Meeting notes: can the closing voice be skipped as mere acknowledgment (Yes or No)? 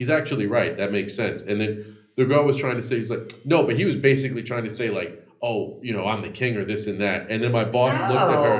Yes